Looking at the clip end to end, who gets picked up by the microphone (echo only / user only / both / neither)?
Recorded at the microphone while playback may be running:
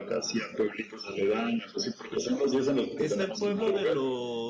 both